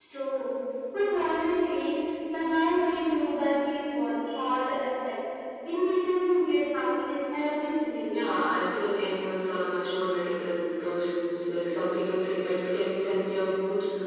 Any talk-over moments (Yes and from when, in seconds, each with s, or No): No